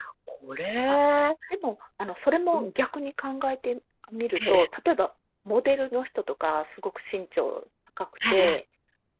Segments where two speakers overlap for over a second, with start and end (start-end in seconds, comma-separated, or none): none